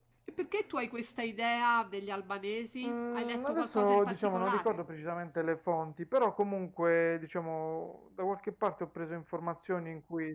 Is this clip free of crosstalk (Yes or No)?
No